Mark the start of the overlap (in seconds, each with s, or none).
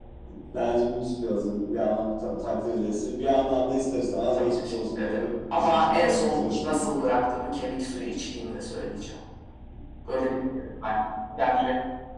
4.3 s